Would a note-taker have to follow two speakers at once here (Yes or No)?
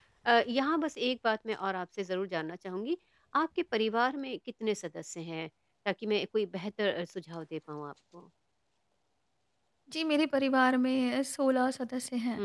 No